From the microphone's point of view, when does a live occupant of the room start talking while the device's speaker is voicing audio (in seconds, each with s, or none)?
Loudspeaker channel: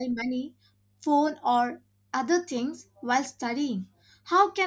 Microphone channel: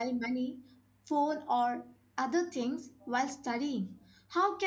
none